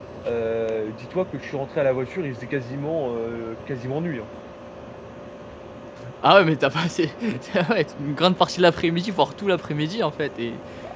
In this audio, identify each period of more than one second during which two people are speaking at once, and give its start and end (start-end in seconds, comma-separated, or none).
none